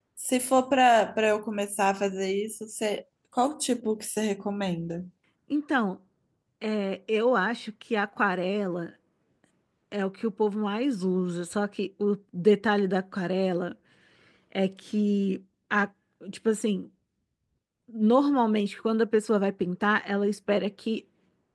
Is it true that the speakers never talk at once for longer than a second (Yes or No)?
Yes